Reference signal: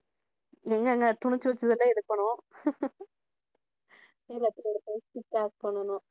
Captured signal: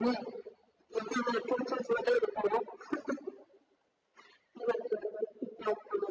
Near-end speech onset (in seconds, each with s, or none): none